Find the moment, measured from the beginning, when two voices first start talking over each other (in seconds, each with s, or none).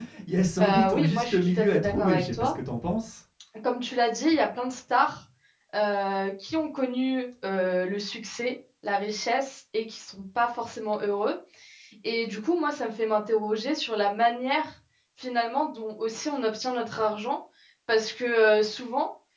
0.6 s